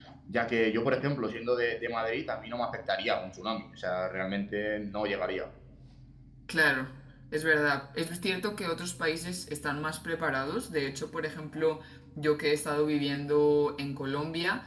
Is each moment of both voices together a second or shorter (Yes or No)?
Yes